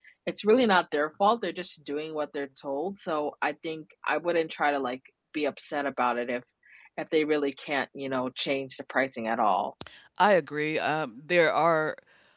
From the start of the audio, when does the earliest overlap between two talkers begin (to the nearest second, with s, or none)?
none